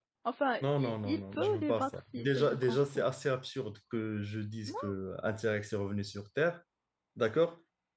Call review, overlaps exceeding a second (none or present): present